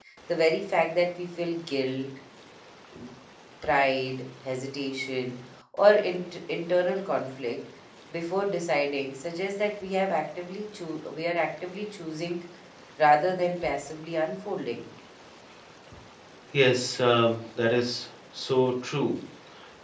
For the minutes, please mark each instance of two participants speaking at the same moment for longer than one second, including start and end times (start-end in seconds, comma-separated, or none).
none